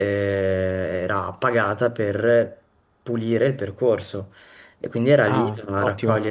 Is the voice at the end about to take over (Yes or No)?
No